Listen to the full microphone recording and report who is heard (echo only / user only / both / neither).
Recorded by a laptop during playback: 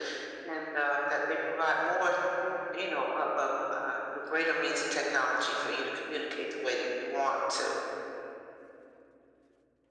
echo only